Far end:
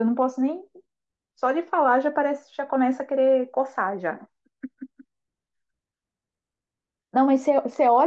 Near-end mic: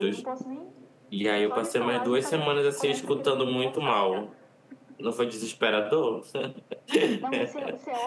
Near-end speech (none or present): present